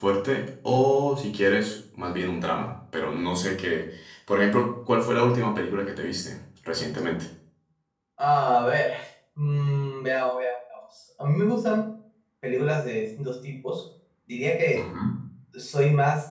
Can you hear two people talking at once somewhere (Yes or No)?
No